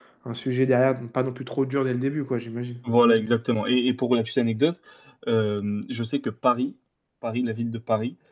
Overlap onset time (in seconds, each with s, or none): none